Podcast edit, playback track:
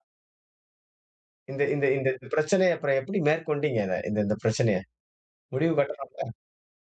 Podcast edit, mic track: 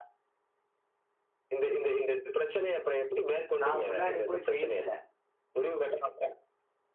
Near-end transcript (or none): நான் முன்னாடி போய் பேசினேன்.